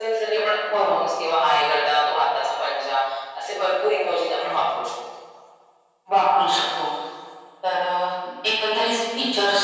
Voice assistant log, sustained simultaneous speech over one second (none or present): none